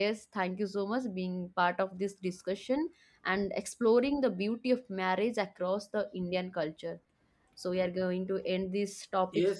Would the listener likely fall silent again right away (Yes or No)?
No